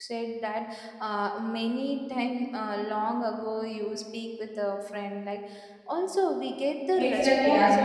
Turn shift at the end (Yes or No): Yes